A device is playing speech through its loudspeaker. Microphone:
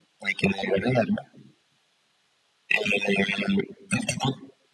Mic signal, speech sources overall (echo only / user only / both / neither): echo only